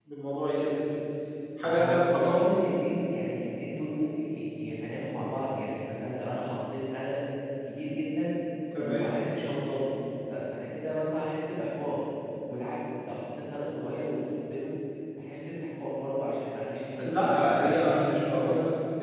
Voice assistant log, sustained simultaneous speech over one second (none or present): present